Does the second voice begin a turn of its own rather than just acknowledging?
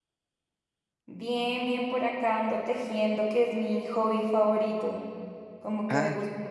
No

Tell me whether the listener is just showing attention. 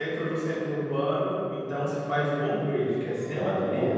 No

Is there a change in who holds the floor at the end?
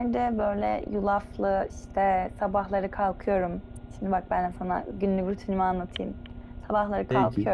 No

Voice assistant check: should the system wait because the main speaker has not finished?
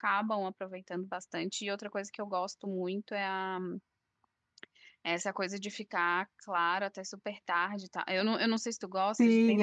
No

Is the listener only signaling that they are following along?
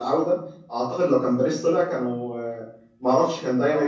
Yes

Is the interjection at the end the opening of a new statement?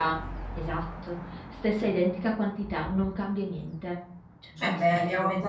Yes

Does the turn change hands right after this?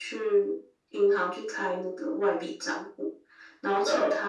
No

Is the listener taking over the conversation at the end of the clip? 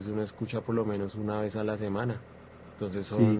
Yes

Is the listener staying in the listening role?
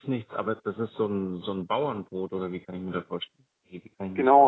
No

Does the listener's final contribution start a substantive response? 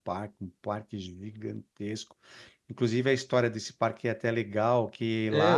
Yes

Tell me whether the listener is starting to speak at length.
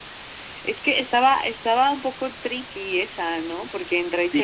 Yes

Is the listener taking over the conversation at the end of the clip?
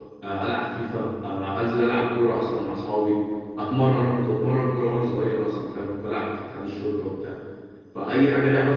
No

